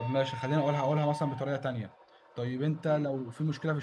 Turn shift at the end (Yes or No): No